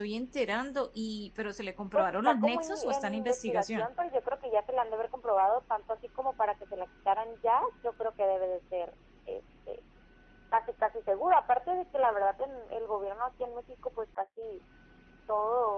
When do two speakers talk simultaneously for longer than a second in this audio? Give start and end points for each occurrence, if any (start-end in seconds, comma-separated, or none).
1.9-3.9